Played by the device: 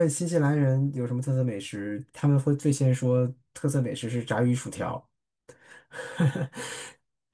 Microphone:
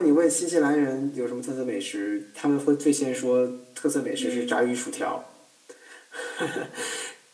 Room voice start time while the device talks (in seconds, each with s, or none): 4.2 s